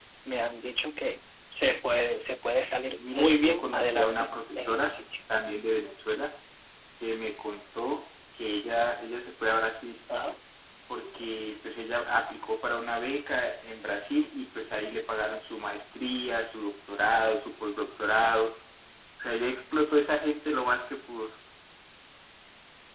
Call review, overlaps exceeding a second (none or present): present